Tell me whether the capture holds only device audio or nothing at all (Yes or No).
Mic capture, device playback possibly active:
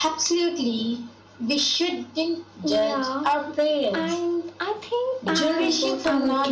No